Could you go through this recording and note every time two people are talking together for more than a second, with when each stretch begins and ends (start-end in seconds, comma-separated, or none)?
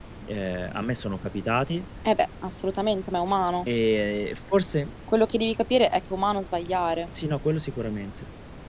none